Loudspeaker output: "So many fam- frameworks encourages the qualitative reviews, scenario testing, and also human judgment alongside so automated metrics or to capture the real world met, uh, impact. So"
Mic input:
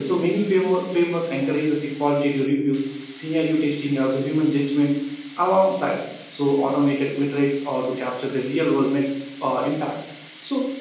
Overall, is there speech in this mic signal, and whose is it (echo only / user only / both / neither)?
echo only